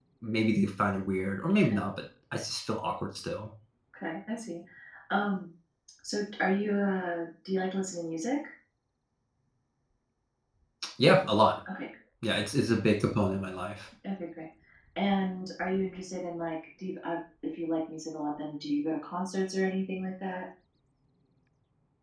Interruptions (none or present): none